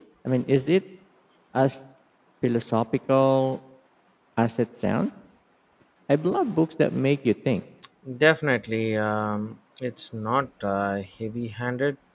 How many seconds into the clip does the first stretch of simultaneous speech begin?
none

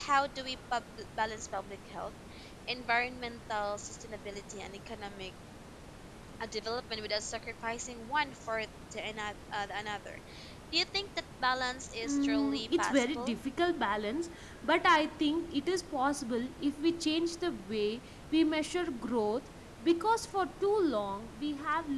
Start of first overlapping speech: 12.0 s

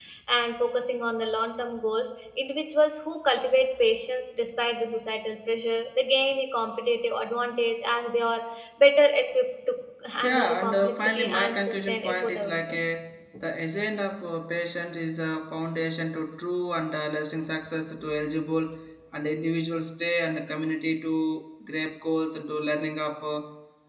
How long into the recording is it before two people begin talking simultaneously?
10.2 s

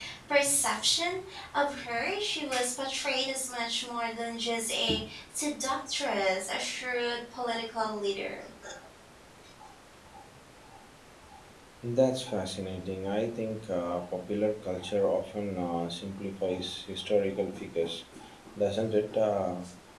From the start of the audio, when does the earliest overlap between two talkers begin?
none

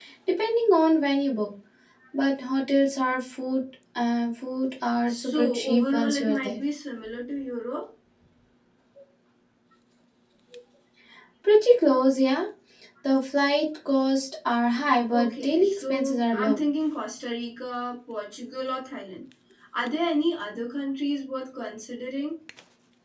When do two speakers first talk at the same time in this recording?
5.1 s

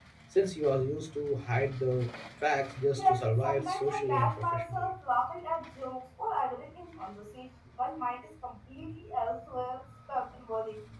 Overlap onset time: 3.0 s

